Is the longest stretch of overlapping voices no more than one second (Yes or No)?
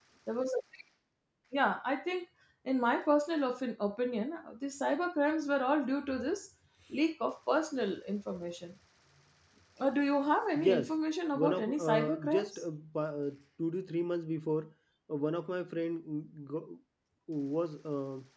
No